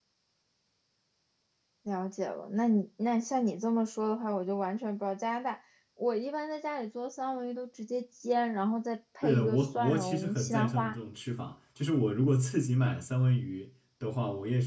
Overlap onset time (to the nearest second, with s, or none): 9 s